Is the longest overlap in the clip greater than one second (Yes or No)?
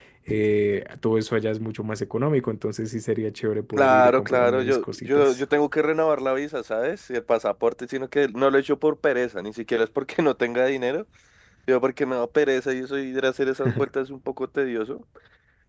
Yes